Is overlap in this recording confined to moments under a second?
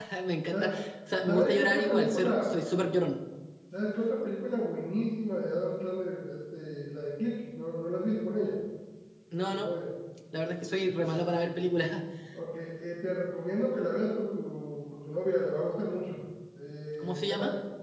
No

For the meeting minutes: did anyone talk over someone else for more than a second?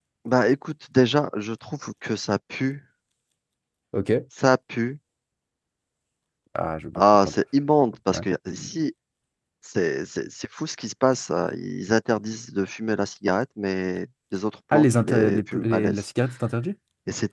Yes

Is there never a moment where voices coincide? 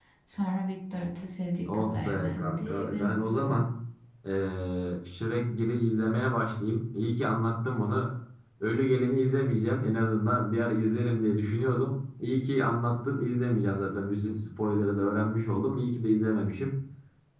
No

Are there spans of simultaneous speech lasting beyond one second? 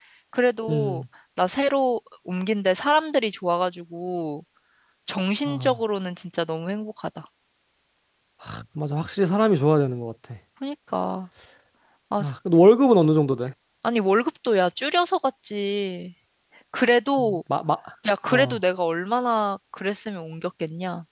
No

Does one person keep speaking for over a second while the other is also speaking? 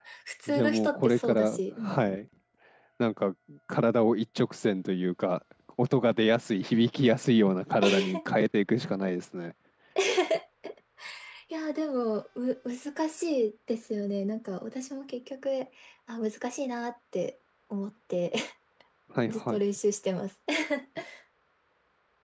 Yes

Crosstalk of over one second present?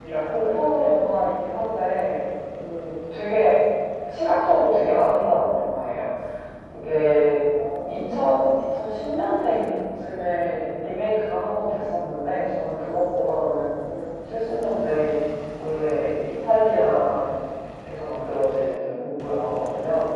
No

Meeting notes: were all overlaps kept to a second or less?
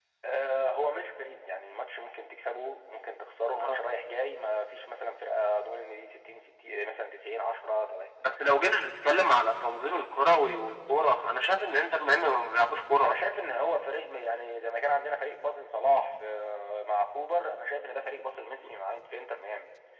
Yes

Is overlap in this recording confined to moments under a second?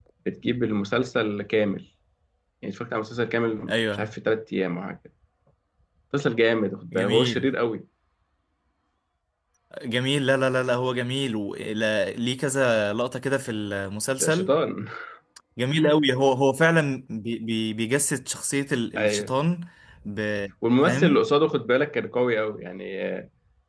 Yes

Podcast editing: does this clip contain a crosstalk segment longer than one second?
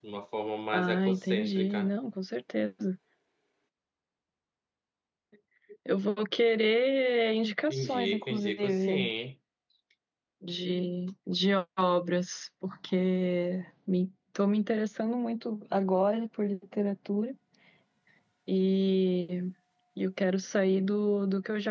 Yes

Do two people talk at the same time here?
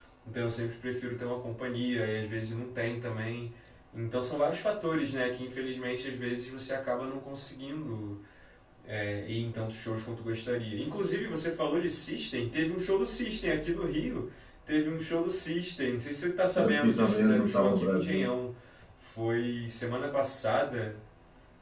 Yes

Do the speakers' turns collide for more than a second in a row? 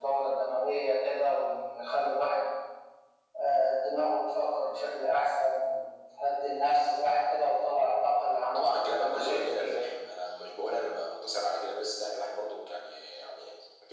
Yes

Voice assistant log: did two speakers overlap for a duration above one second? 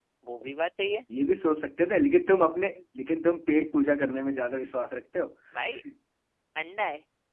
No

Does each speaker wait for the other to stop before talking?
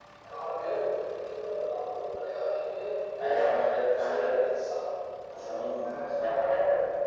No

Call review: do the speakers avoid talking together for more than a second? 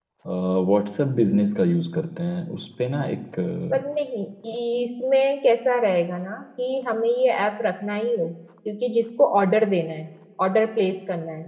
Yes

